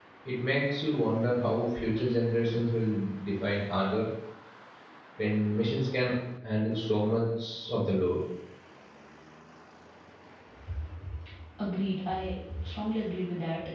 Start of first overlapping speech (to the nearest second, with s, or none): none